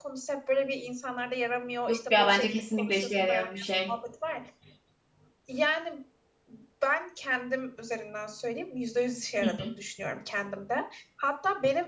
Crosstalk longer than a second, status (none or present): present